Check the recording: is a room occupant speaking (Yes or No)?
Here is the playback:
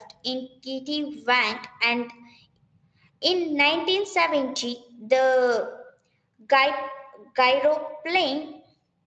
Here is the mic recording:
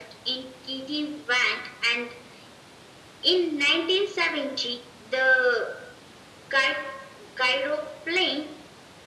No